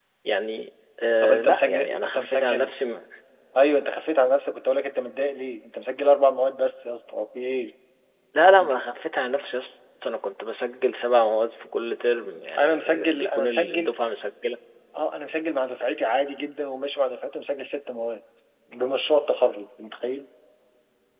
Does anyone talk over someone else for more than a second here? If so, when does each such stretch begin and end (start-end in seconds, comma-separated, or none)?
1.2-2.7, 12.6-13.9